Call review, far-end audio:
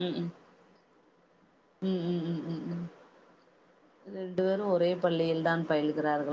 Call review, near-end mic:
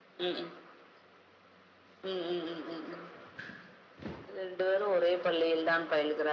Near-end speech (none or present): none